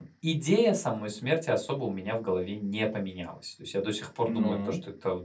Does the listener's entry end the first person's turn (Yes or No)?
No